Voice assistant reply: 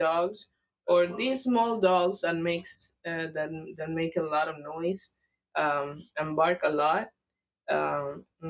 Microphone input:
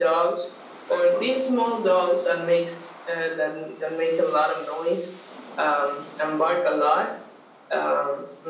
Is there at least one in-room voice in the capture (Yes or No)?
No